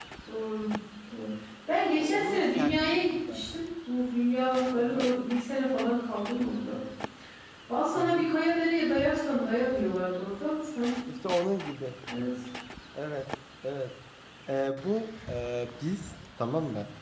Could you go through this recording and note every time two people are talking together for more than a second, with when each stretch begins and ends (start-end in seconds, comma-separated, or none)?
2.0-3.4